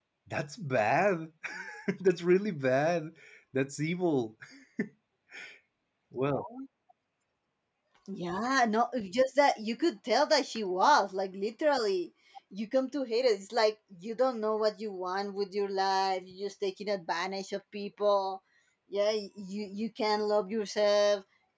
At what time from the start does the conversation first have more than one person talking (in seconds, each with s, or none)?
none